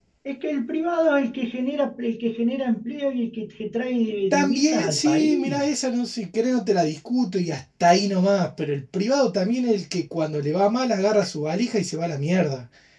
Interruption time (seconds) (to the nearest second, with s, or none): 4 s